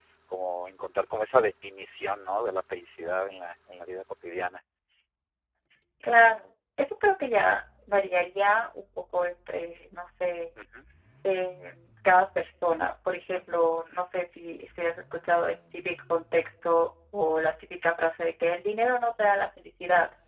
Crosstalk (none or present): none